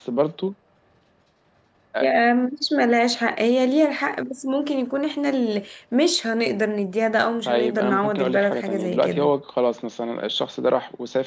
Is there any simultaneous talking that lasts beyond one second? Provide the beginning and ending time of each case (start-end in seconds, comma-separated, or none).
7.4-9.3